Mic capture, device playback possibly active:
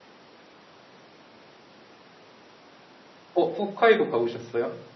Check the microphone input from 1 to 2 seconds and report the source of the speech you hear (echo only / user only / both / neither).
neither